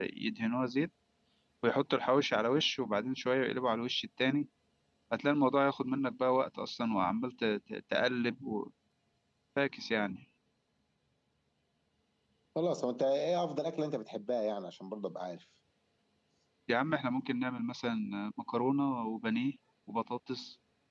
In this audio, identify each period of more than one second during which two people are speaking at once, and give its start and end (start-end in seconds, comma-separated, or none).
none